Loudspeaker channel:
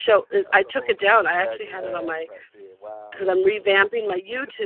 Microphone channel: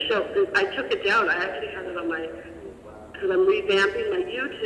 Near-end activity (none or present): none